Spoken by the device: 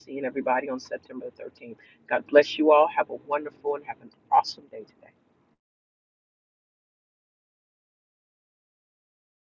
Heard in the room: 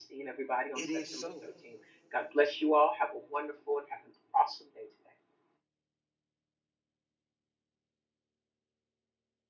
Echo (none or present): present